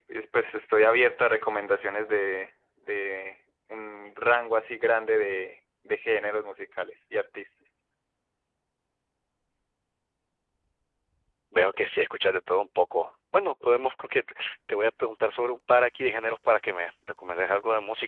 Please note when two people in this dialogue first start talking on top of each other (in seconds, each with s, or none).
none